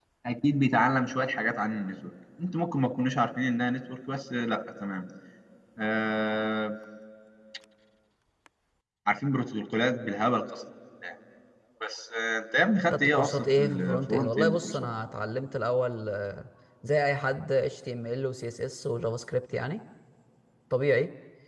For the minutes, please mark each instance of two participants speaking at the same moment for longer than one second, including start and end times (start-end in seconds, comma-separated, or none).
12.9-14.9